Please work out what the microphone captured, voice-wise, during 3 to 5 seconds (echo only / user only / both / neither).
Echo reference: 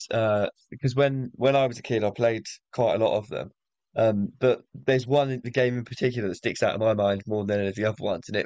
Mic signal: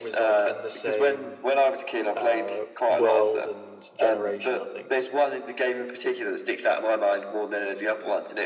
both